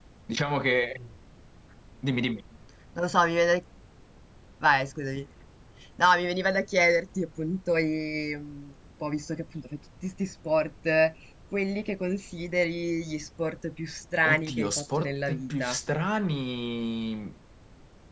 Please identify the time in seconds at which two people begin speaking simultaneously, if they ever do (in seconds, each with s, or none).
14.2 s